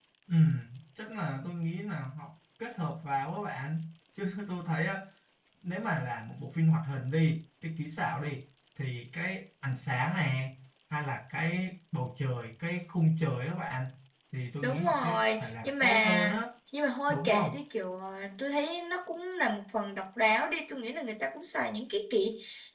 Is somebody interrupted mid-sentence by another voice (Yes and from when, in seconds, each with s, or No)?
Yes, from 14.6 s